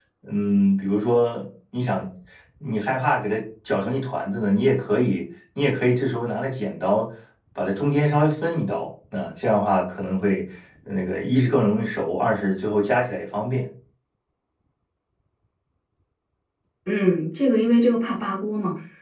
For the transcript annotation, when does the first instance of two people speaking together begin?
none

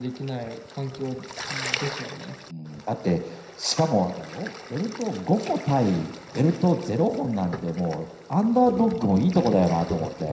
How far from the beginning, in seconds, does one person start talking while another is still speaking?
none

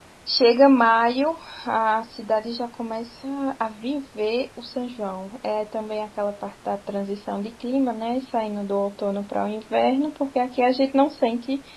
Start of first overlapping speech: none

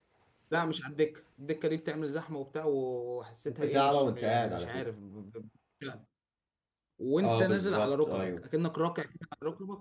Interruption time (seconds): 3.5 s

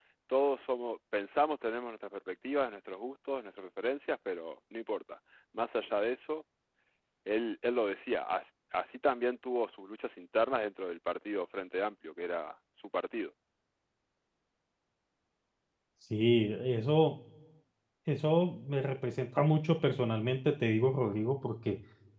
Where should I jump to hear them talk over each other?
none

